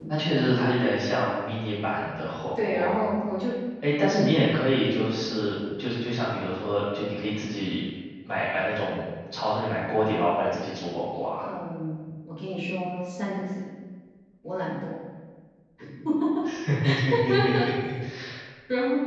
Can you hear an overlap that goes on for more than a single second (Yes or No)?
No